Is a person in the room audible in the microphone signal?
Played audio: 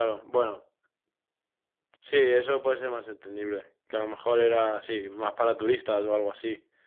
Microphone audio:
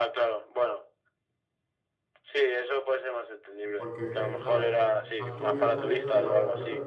Yes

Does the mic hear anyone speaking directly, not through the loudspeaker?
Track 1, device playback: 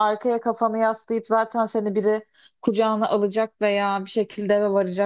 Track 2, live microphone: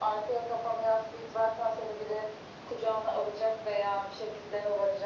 No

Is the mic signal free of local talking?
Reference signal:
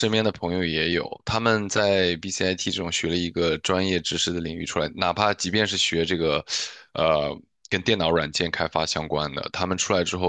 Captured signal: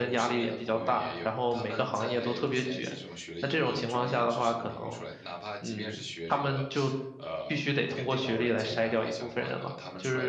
No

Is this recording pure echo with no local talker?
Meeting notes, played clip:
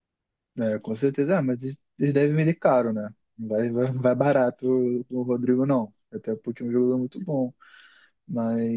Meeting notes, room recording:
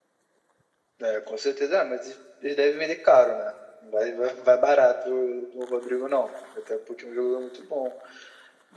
Yes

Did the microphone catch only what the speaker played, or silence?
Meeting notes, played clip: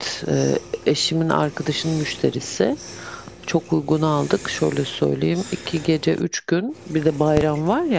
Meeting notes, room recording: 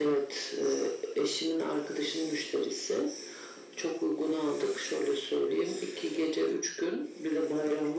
Yes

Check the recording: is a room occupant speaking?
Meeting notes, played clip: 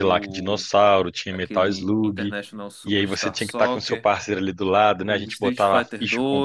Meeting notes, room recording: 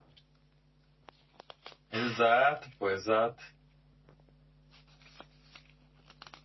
Yes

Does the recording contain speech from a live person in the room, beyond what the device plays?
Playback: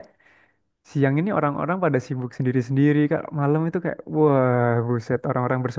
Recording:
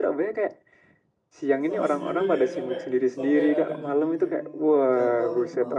Yes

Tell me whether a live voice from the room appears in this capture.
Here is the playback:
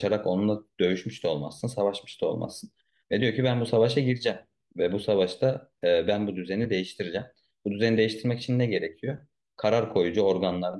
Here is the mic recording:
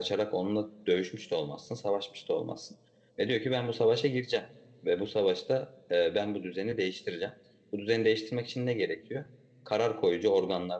No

